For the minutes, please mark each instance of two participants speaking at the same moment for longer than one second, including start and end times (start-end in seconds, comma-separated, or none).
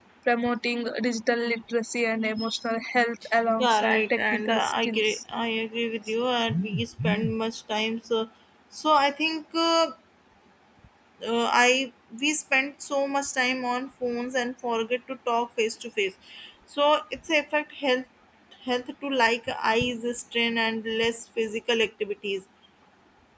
3.6-5.2